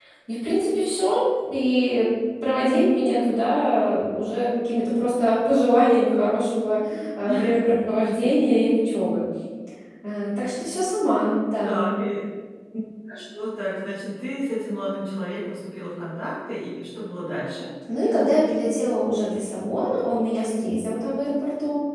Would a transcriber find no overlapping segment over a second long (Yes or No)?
Yes